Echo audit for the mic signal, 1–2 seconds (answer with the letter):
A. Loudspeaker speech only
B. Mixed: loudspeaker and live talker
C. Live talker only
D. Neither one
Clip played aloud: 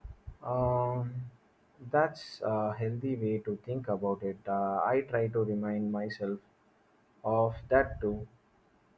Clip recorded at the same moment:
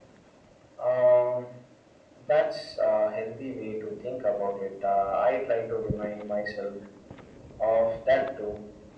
A